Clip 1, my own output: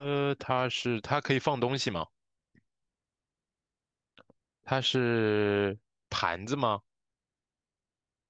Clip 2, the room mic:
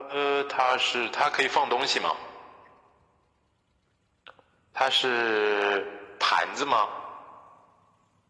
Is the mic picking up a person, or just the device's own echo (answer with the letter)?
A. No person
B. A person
A